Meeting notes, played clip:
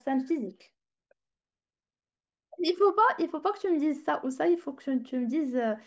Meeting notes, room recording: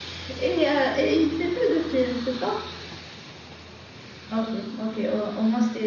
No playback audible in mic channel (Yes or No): Yes